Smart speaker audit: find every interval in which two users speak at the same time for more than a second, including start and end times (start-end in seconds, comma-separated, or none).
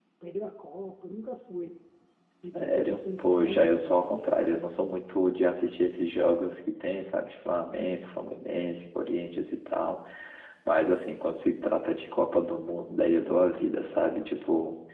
2.5-4.5